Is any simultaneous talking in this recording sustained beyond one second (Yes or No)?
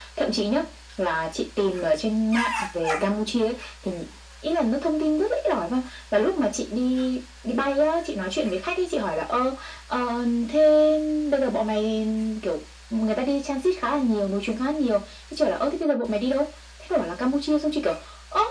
No